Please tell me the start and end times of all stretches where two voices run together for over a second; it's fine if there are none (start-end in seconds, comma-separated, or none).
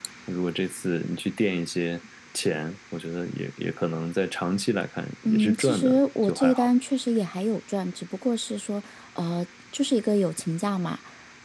5.2-6.7